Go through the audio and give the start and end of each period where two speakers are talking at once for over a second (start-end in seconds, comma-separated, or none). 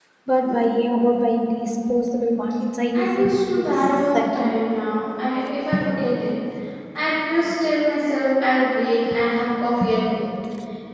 3.0-4.5